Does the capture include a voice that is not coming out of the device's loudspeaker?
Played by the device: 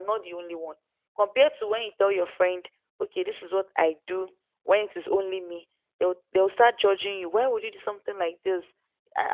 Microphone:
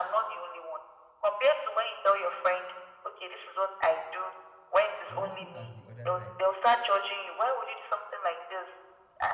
Yes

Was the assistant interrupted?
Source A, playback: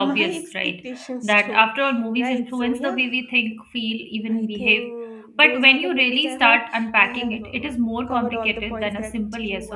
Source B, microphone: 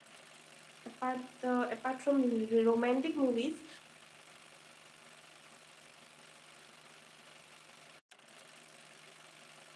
Yes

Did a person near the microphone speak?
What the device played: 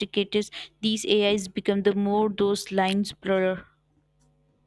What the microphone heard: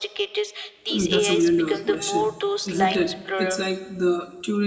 Yes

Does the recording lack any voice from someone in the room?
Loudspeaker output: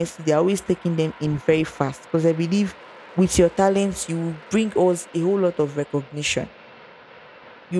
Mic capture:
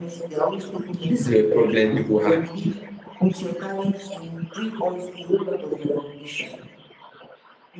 No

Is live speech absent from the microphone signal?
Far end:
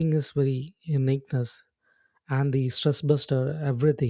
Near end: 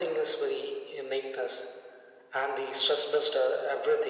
Yes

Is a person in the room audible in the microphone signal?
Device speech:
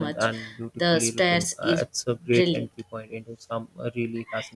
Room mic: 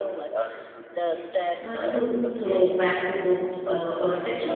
Yes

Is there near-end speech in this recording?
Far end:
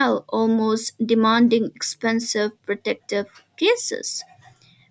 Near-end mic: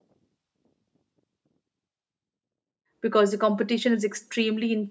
Yes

